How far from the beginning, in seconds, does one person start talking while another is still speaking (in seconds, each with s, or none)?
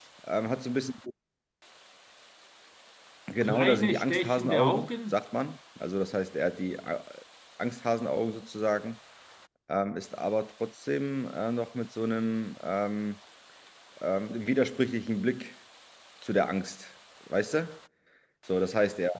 3.4 s